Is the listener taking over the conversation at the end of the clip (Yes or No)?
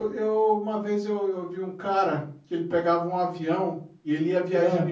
No